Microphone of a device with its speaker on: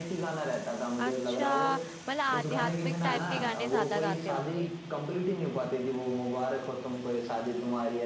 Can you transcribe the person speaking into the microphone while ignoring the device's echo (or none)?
अच्छा मतलब आध्यात्मिक टाइप के गाने ज्यादा गाते होंगे